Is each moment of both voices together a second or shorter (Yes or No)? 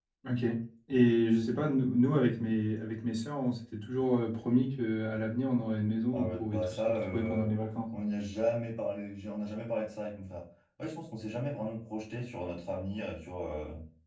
No